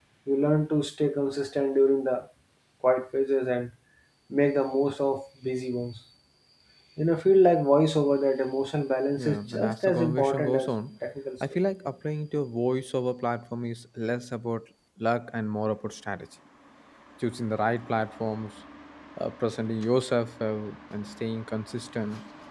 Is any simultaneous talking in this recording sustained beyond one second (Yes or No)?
Yes